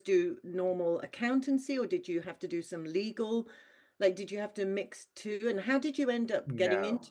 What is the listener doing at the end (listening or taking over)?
taking over